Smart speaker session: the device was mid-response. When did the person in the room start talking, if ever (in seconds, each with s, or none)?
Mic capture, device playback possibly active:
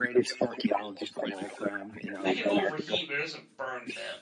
2.2 s